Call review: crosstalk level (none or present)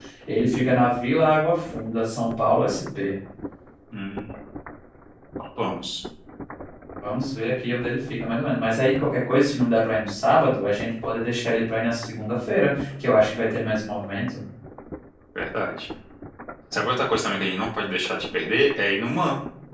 none